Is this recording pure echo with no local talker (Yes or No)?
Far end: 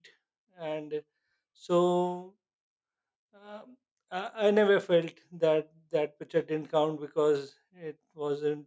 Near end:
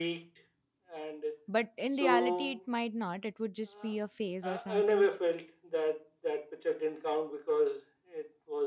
No